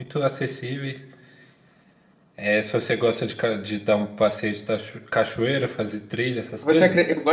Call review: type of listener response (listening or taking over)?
taking over